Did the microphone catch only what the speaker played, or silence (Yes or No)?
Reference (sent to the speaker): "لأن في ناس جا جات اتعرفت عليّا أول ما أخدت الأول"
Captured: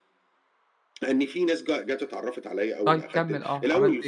No